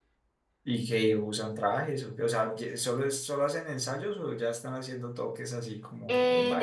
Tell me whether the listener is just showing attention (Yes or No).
No